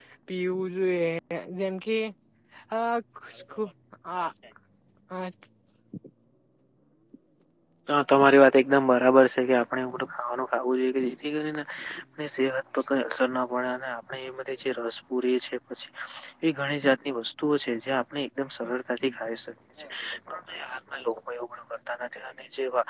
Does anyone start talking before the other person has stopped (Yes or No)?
No